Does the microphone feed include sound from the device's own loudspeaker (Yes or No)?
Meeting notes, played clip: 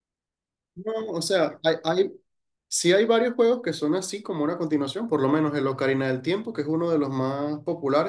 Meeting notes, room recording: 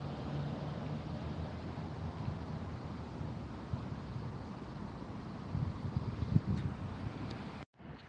No